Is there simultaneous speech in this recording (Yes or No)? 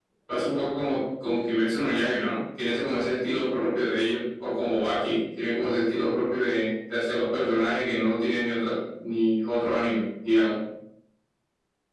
No